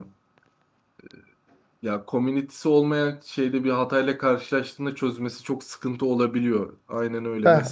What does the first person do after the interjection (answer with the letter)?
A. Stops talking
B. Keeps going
B